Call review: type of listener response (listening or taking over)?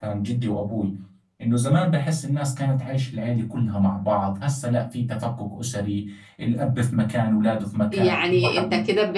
taking over